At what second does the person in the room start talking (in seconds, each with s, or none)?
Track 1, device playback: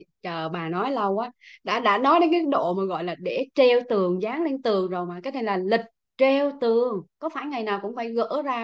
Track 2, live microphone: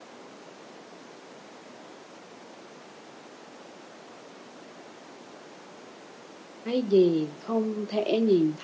6.6 s